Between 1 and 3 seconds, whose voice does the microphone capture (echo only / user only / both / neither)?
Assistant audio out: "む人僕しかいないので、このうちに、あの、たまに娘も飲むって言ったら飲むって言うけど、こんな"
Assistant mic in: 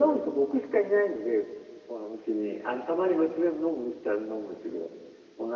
echo only